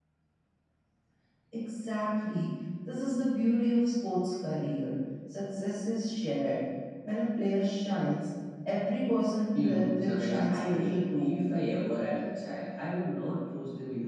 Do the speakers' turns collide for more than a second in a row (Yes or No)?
Yes